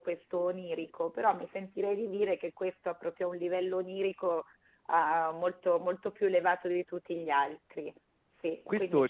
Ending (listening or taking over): taking over